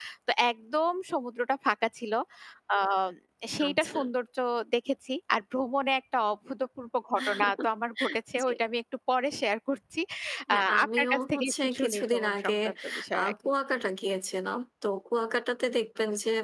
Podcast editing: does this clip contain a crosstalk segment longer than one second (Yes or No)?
Yes